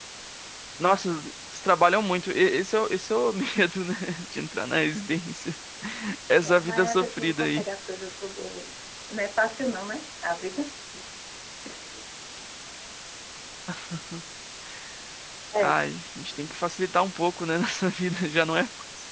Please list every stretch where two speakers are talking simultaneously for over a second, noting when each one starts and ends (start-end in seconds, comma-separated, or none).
6.4-7.6